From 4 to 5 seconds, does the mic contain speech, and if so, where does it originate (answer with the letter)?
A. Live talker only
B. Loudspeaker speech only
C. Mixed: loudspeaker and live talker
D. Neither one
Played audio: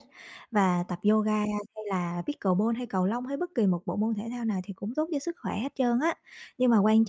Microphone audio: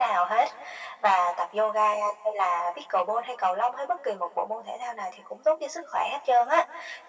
B